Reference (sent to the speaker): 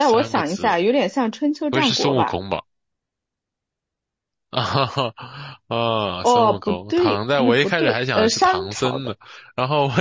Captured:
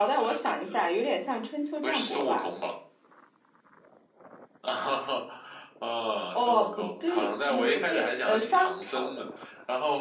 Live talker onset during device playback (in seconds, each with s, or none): none